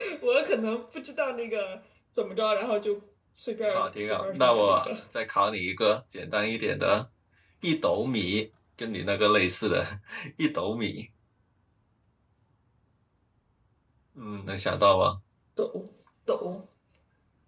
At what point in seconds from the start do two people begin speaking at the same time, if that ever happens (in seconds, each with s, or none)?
3.6 s